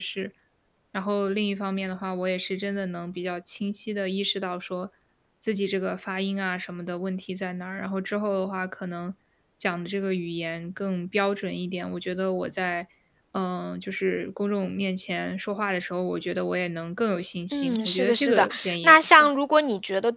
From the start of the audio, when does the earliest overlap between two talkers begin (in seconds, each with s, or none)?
17.5 s